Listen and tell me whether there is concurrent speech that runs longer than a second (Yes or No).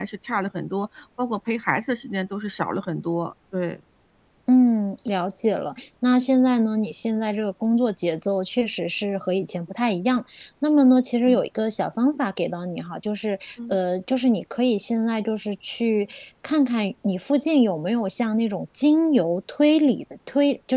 No